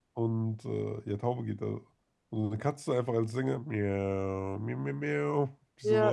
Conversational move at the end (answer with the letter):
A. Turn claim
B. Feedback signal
A